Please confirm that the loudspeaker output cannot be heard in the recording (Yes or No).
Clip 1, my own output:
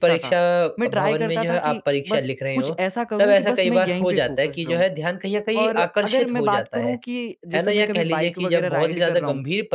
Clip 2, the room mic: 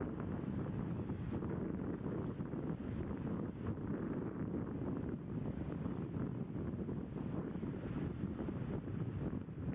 Yes